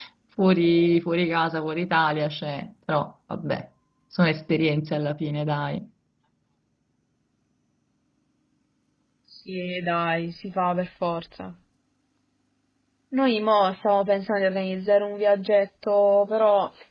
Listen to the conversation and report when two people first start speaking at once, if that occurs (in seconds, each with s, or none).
none